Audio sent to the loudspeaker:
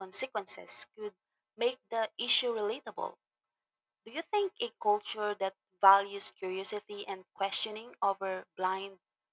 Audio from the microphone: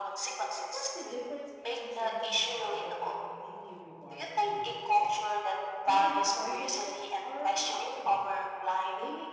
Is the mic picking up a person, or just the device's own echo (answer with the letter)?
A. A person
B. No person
A